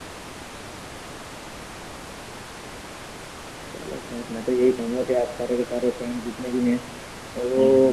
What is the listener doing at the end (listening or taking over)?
listening